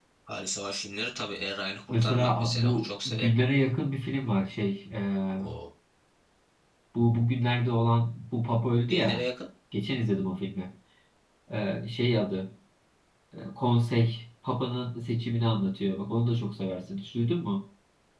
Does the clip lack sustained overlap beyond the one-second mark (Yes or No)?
No